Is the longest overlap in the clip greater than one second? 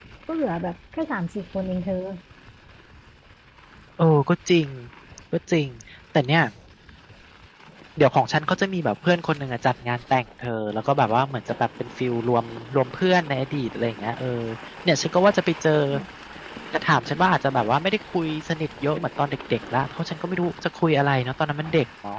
No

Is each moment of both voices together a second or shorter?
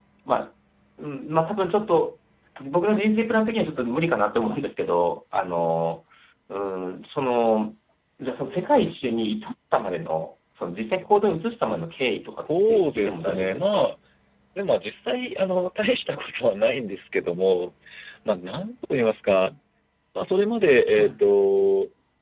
No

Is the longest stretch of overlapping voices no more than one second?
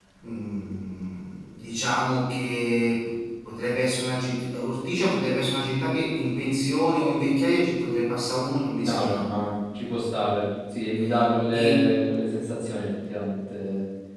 Yes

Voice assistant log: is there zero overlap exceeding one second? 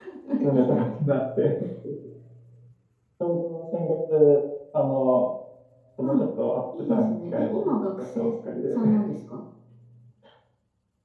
No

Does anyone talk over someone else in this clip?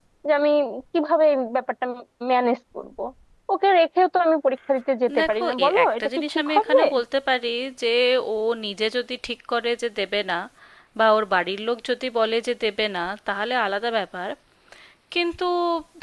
Yes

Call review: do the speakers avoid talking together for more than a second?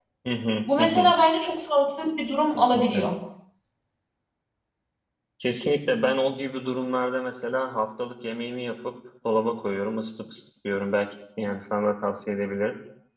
Yes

